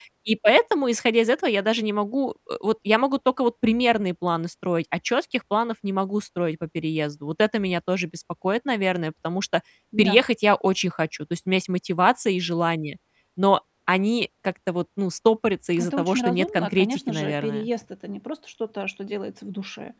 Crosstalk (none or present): present